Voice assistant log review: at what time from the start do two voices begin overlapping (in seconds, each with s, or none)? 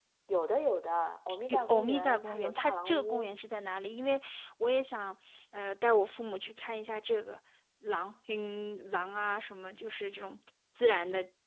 1.5 s